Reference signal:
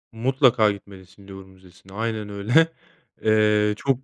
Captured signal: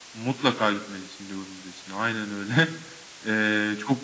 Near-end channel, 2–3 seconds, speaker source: echo only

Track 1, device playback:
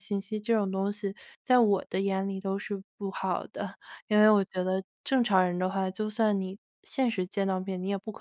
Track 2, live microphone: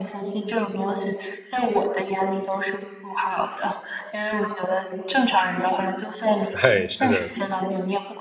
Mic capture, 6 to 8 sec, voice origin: both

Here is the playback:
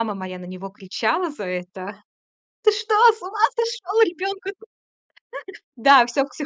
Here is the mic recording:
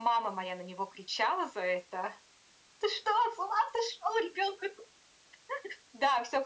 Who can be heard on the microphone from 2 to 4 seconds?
echo only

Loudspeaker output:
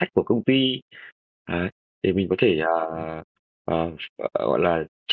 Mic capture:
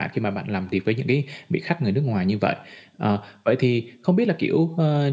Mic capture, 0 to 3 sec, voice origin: user only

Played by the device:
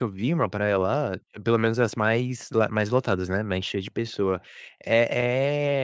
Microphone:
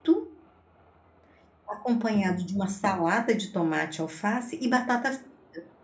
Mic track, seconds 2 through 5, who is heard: user only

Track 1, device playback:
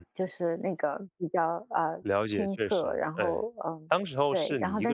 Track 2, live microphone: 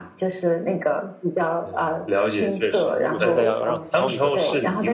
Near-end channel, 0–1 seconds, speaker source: echo only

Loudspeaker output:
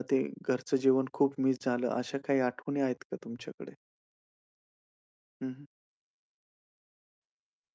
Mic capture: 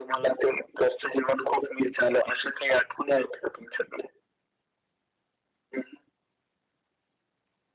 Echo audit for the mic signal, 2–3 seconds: echo only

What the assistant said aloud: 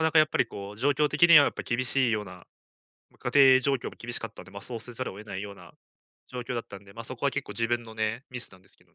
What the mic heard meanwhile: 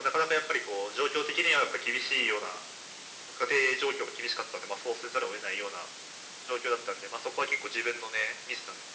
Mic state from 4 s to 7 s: echo only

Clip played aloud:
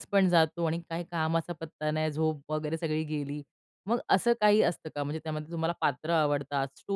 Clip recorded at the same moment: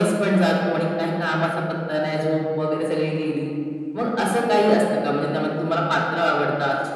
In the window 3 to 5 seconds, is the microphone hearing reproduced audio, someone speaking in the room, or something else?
echo only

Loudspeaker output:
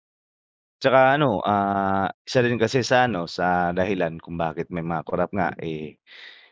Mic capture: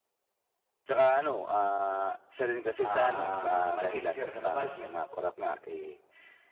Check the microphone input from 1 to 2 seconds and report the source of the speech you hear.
echo only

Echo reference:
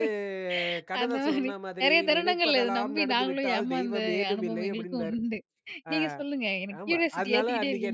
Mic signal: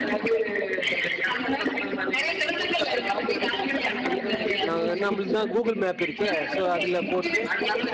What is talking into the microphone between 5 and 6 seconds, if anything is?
both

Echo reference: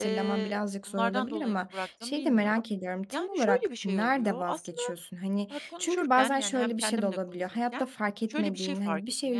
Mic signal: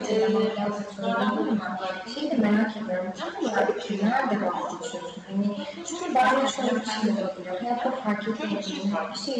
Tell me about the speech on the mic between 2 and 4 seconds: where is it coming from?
echo only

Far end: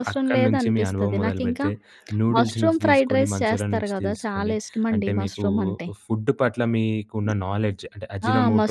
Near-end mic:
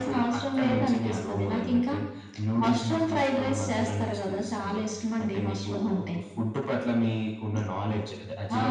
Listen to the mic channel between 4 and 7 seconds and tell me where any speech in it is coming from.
echo only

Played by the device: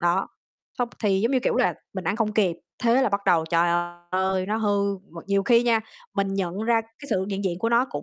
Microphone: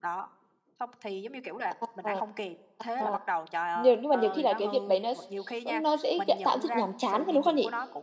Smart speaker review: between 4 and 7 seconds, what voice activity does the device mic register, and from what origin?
both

